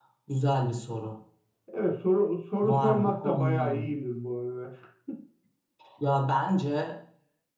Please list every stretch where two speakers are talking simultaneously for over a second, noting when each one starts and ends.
2.6-3.9

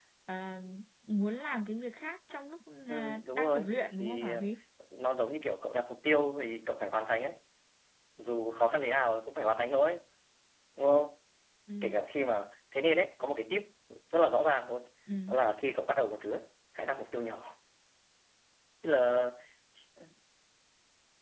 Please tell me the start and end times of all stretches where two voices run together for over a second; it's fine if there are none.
2.9-4.4

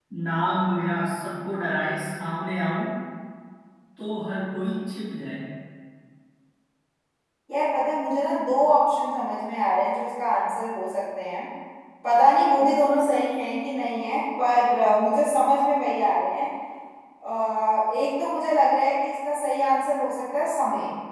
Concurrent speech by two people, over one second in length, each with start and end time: none

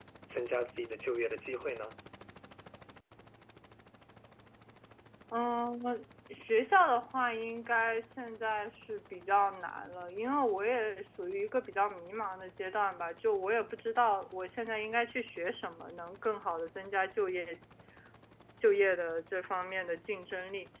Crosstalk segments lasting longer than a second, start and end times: none

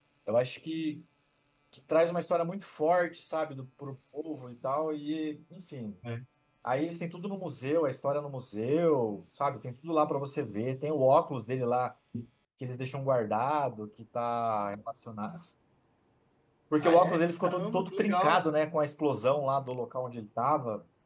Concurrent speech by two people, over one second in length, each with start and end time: 16.8-18.4

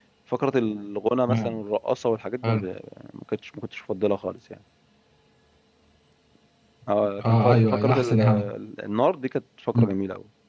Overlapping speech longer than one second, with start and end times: 7.3-8.5

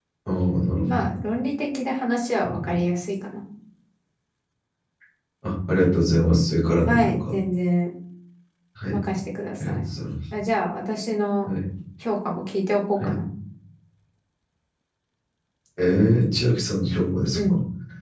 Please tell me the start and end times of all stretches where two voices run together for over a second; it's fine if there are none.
none

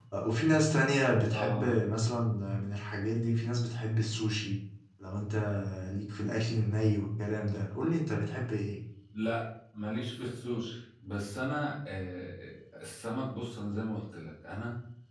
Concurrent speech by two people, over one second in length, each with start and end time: none

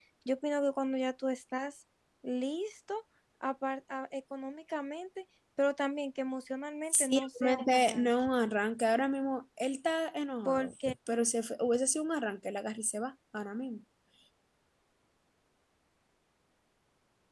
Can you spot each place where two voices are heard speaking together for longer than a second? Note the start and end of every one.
6.9-8.1

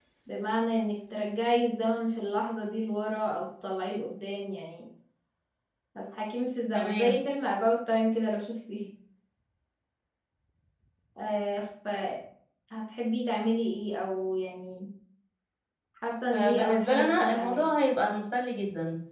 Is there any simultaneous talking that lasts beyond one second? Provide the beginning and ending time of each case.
16.3-17.6

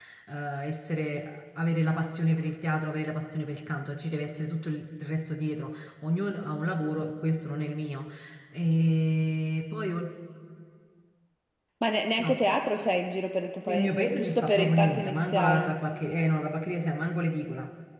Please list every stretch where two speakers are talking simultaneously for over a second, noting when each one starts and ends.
13.7-15.7

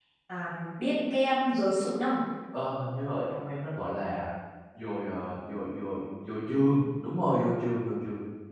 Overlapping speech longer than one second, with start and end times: none

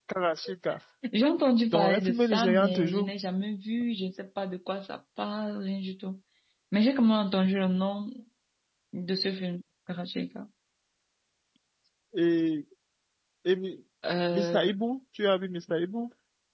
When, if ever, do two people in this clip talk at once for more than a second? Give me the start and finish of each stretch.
1.7-3.1

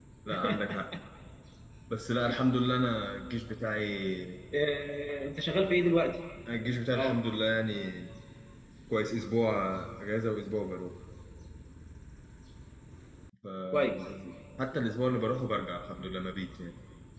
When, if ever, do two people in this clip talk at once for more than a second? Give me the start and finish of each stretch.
none

